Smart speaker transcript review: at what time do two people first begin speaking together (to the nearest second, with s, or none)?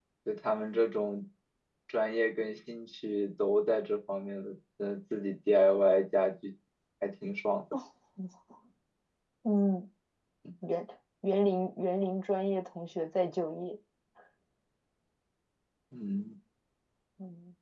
none